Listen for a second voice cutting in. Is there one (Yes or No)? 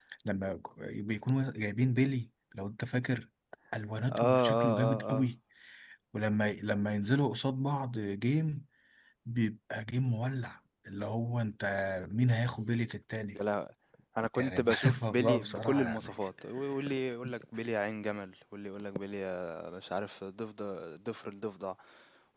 Yes